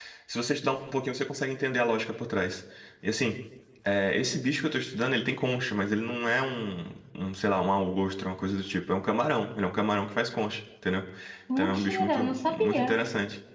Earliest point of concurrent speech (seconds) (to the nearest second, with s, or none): 12 s